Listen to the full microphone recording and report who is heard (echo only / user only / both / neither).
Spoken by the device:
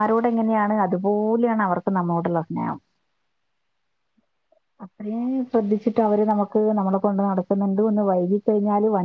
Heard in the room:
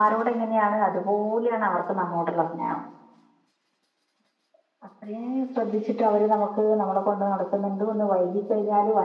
echo only